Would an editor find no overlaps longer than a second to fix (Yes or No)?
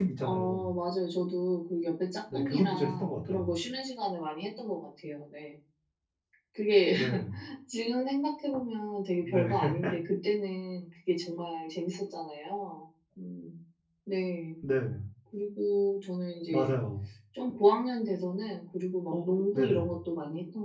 No